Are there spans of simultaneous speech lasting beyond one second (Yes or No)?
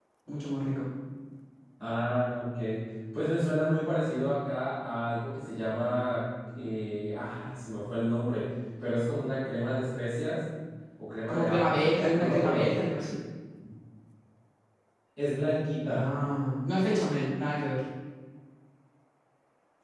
Yes